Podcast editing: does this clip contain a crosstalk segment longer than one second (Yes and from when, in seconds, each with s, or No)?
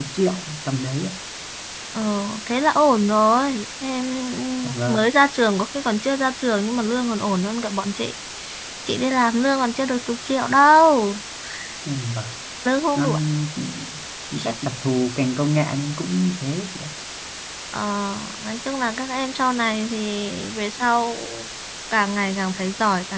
No